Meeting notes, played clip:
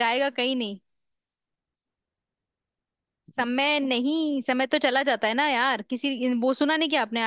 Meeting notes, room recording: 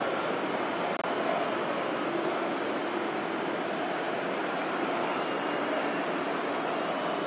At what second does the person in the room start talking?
none

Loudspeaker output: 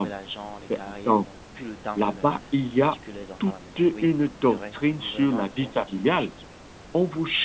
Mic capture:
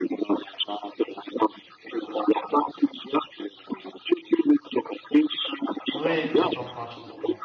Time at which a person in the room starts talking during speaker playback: 5.9 s

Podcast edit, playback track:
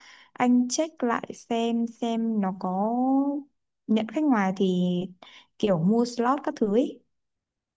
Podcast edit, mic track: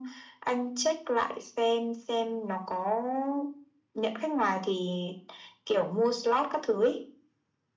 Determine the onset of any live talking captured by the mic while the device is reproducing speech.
none

